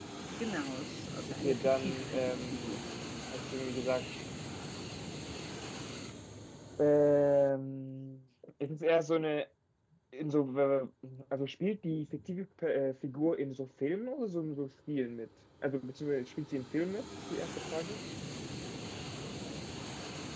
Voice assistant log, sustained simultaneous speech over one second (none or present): present